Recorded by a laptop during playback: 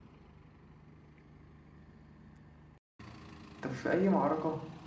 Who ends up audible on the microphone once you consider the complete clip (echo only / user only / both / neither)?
user only